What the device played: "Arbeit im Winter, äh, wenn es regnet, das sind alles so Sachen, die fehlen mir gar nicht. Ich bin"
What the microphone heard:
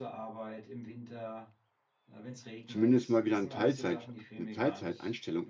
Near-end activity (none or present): present